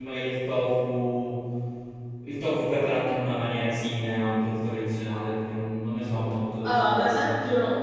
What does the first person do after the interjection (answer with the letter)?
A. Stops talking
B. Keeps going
A